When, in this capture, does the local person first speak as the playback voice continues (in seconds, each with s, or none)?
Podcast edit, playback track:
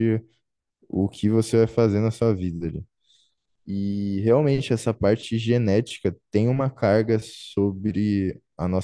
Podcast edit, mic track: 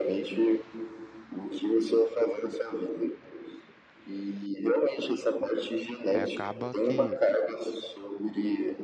6.1 s